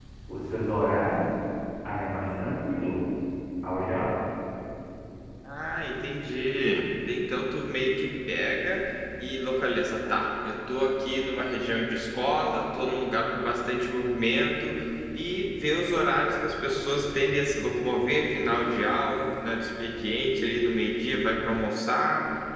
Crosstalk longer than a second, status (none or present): none